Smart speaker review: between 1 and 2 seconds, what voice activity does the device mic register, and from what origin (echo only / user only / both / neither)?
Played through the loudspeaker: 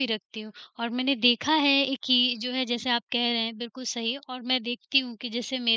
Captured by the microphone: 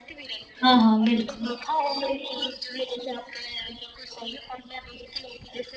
both